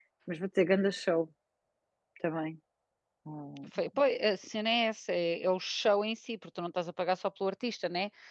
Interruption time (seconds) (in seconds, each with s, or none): none